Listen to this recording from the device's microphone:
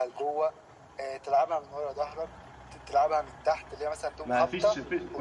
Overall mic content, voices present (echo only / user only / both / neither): both